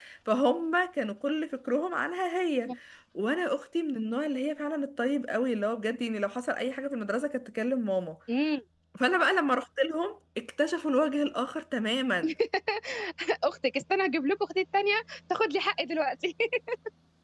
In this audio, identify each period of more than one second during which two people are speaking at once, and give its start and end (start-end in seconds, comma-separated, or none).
none